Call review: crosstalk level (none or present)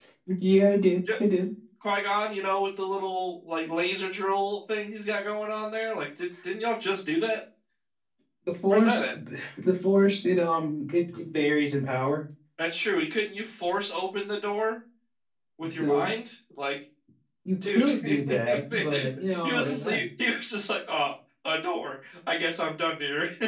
present